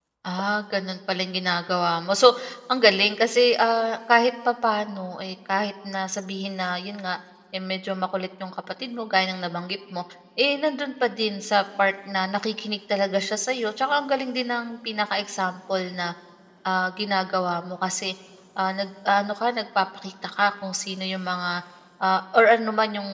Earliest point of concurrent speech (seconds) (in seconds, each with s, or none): none